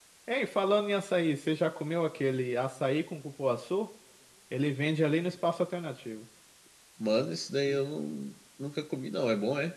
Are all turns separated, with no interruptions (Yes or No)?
Yes